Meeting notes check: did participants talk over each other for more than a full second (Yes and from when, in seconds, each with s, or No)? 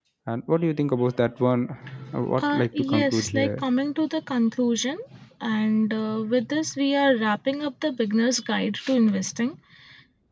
Yes, from 2.4 s